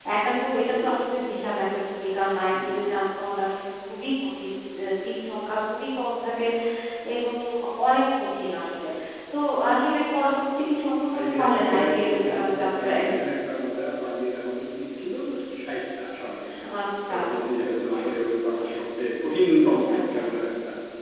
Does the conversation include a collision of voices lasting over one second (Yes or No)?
Yes